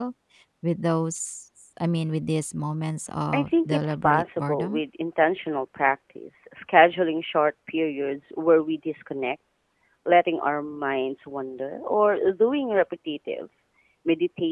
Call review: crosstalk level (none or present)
present